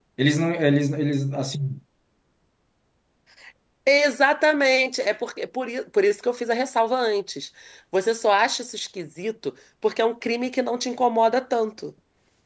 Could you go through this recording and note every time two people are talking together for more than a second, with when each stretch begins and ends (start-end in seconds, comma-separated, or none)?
none